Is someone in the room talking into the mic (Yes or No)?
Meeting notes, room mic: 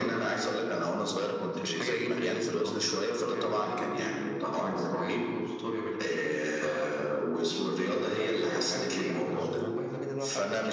Yes